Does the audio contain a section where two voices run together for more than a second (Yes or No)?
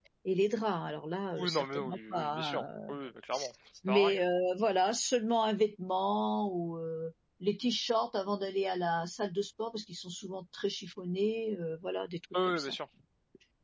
Yes